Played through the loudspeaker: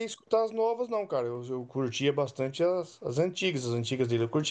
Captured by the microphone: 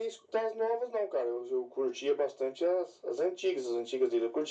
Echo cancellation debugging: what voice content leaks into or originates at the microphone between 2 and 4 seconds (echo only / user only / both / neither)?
echo only